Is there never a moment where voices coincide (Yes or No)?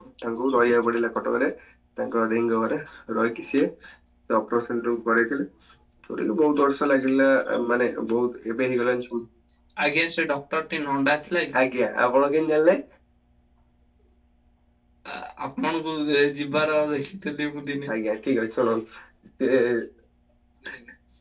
Yes